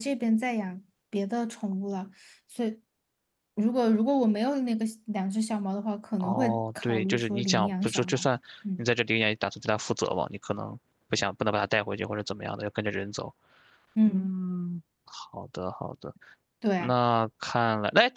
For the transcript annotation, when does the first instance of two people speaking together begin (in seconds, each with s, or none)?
6.2 s